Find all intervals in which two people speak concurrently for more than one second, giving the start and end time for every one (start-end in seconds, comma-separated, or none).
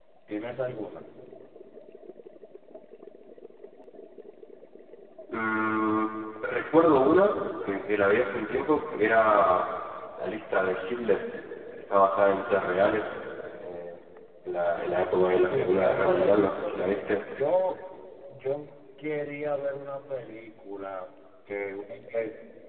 15.5-16.8